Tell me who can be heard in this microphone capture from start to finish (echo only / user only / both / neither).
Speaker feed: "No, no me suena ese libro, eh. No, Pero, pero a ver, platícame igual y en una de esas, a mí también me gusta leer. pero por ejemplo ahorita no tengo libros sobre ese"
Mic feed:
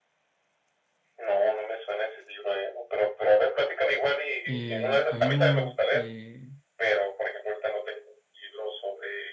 both